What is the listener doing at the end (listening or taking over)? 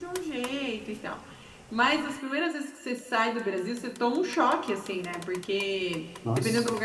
listening